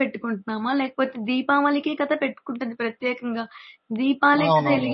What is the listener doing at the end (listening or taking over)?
listening